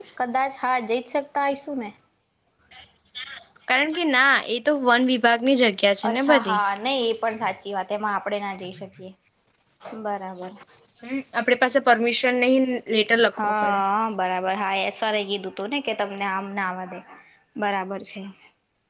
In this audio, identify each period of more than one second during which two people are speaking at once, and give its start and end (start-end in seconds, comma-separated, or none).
none